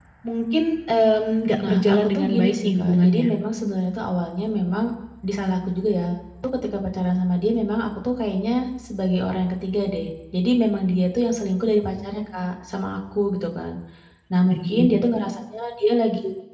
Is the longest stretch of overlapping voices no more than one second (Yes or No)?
No